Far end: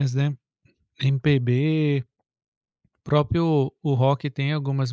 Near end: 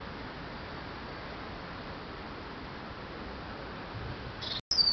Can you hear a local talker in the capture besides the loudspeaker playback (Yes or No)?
No